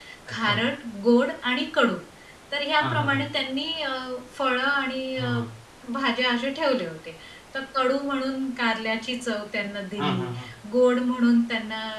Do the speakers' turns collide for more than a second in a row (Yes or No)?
No